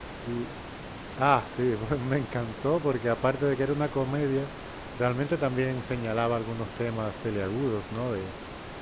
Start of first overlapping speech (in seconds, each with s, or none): none